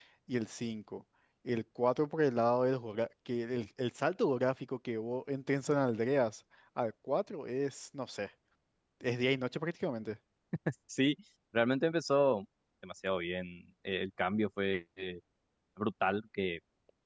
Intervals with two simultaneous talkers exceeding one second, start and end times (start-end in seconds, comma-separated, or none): none